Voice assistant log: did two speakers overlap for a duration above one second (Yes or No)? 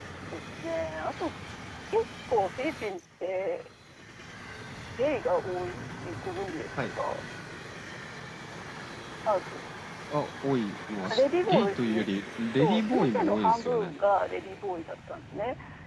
Yes